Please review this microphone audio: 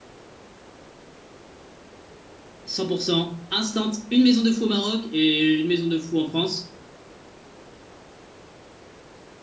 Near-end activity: present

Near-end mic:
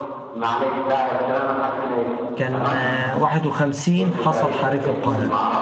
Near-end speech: present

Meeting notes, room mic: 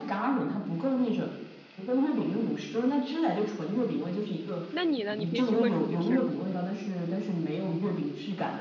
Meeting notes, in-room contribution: present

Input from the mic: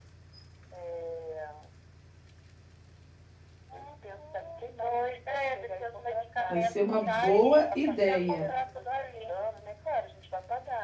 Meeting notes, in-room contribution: present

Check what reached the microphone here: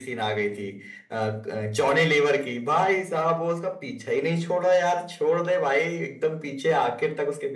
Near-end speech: none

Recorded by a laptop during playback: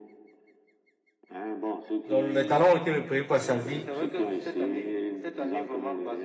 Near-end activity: present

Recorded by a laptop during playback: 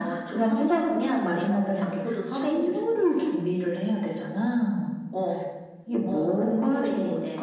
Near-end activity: none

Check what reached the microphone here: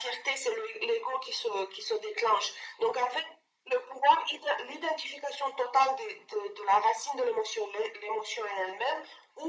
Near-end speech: none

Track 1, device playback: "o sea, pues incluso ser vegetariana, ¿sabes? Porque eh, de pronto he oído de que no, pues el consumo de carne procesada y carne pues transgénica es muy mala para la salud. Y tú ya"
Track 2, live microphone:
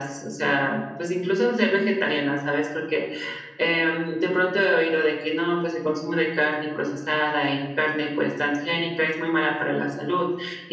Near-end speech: none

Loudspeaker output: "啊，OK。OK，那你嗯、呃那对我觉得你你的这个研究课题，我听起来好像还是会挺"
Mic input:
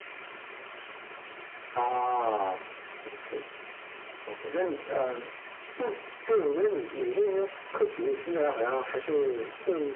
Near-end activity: none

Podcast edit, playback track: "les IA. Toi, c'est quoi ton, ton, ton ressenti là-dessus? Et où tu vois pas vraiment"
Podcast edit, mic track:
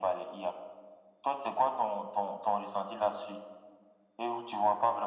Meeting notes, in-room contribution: none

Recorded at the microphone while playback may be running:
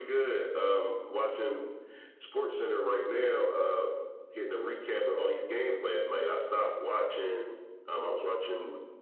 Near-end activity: none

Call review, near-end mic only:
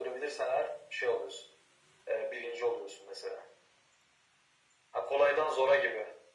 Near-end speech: none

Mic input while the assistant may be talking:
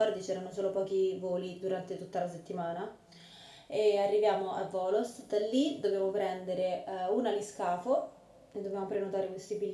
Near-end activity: present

